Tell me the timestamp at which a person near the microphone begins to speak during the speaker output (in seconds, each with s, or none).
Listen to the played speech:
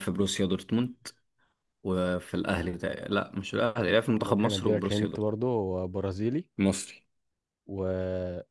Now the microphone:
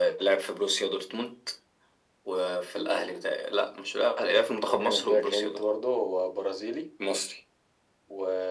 none